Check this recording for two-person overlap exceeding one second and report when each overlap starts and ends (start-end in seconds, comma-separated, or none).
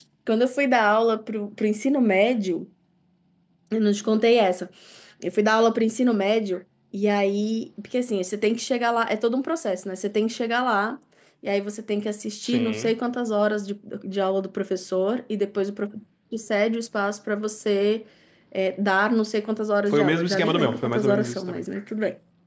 19.9-21.6